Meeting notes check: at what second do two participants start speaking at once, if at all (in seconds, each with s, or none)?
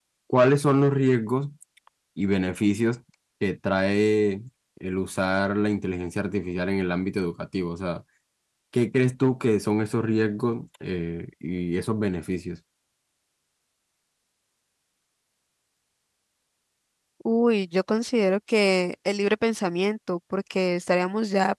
none